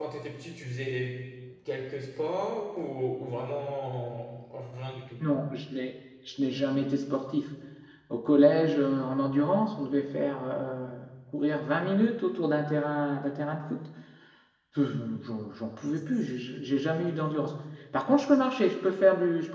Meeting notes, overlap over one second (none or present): none